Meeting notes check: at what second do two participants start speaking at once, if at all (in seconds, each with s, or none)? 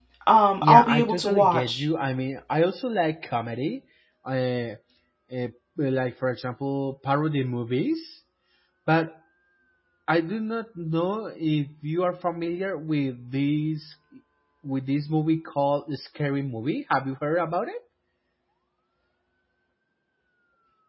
0.6 s